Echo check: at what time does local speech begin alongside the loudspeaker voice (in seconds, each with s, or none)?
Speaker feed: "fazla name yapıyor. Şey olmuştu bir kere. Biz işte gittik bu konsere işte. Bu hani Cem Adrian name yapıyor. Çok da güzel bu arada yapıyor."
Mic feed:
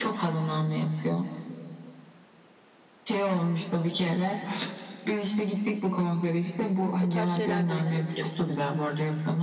7.0 s